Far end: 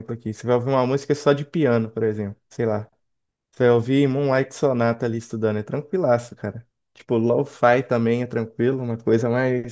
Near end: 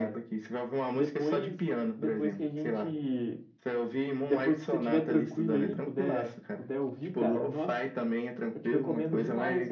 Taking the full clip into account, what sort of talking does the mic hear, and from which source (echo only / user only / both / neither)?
both